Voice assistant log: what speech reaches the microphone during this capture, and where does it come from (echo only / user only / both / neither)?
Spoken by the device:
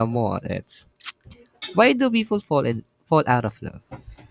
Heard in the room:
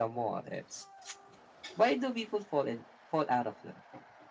echo only